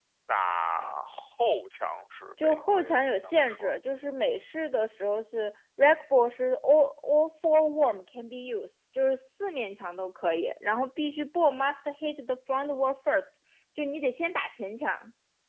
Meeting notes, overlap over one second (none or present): present